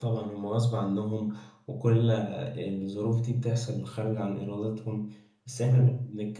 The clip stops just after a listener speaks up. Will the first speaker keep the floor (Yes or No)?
Yes